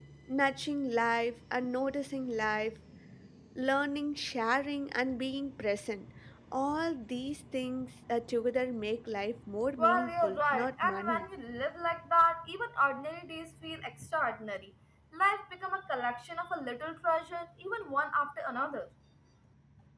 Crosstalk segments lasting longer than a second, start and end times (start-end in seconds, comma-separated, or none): 9.8-11.2